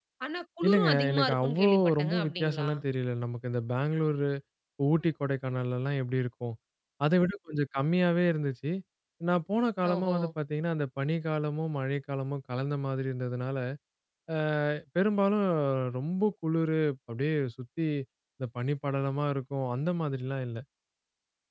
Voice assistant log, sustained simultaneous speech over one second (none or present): present